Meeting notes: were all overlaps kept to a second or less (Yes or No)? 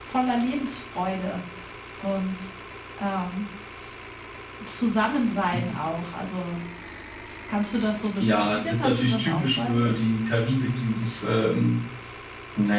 No